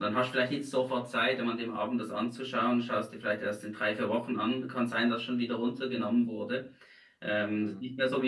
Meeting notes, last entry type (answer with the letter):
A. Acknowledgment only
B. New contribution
A